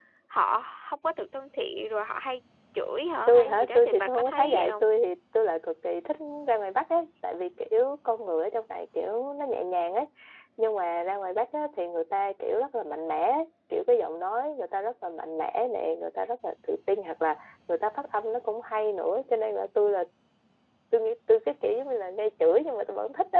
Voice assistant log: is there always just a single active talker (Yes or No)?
No